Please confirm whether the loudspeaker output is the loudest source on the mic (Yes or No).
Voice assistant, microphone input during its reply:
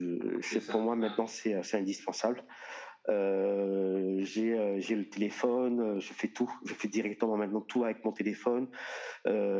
Yes